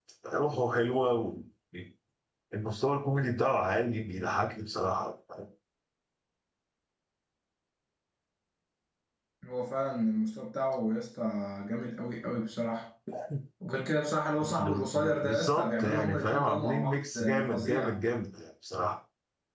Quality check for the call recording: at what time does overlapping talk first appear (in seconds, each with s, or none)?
14.6 s